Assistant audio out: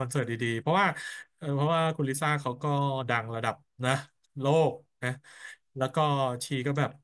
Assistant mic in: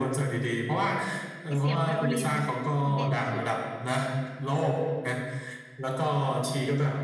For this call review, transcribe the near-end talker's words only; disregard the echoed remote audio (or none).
เสียงไวโอลินบิกคือเด่นสุดมา